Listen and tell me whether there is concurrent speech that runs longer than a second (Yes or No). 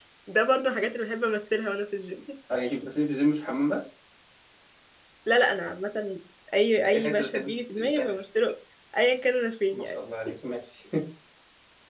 Yes